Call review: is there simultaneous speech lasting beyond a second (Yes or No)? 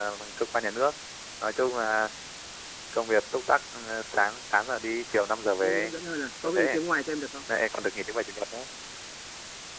No